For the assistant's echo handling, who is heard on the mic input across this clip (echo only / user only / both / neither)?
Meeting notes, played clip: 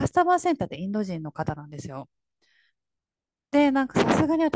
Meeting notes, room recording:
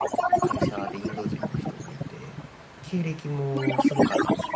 both